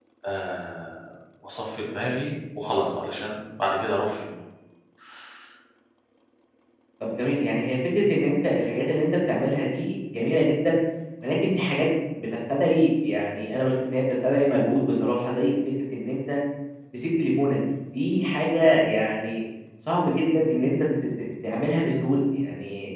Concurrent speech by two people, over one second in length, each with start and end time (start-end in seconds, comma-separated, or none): none